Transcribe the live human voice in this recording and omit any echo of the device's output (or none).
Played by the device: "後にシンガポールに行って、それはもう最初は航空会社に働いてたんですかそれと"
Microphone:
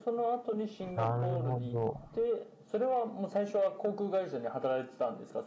なるほど。